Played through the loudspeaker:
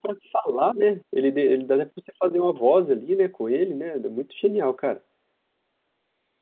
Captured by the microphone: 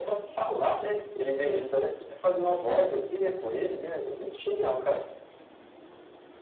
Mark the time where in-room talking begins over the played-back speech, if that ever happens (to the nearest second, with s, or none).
none